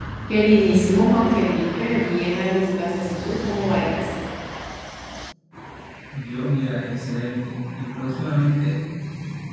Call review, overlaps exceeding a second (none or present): none